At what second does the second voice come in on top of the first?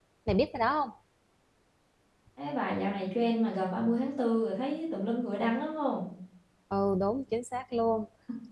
none

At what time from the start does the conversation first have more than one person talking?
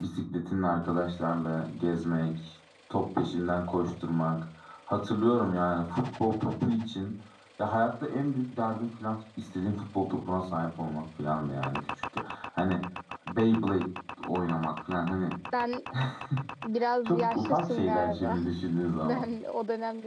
17.1 s

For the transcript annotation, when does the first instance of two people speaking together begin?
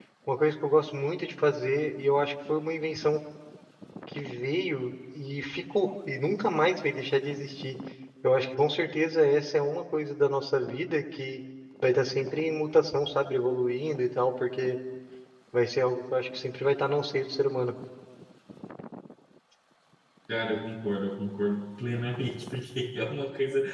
none

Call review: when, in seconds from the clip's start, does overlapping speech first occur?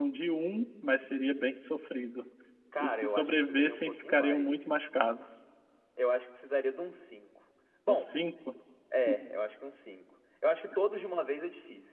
2.8 s

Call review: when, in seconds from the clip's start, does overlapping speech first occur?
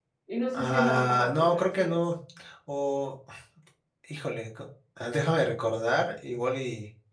0.5 s

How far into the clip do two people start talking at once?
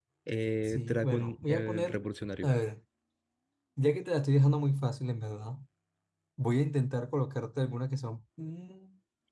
0.7 s

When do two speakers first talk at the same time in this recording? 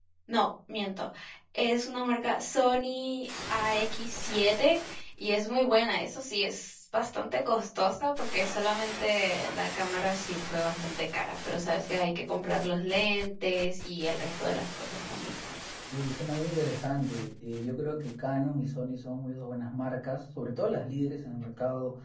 none

